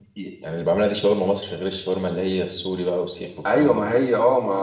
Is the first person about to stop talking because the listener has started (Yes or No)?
Yes